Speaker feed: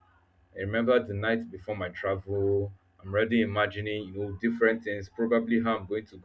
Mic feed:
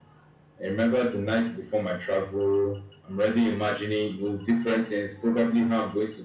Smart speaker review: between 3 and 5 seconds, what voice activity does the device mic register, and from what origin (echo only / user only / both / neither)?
echo only